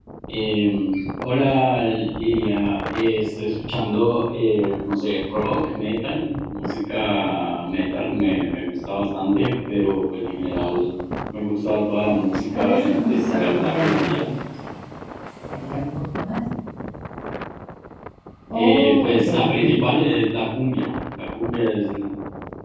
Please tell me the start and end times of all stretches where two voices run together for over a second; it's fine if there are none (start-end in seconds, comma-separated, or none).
12.5-14.3, 18.5-19.8